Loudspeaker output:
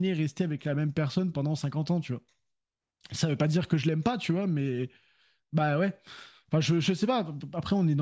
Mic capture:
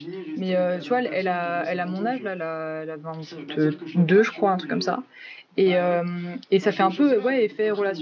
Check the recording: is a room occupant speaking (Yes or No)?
Yes